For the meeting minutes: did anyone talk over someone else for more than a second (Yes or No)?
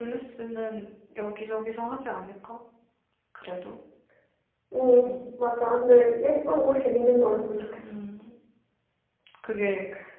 No